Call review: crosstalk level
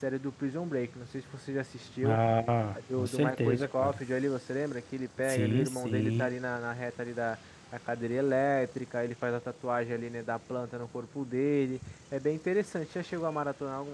present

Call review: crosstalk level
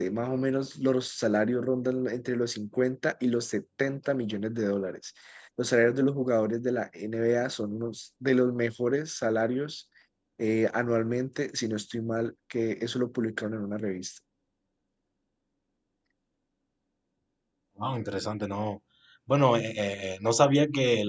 none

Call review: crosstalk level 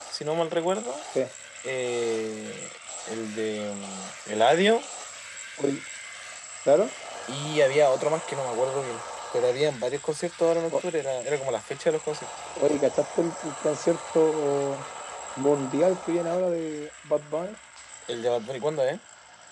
none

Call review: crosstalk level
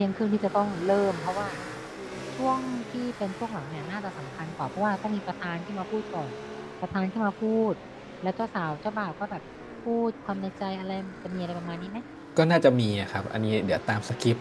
none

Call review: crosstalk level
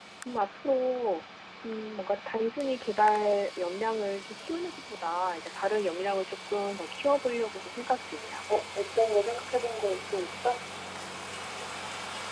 none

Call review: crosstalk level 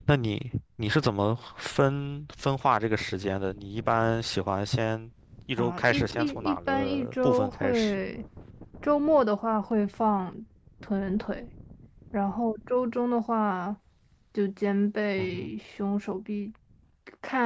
present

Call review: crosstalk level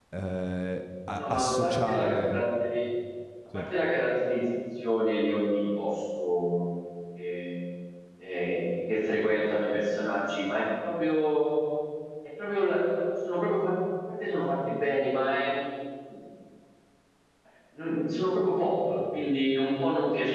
present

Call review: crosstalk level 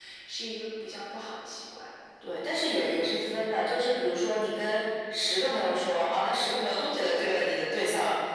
none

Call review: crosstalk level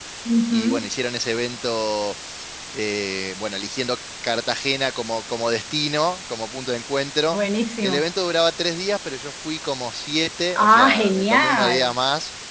present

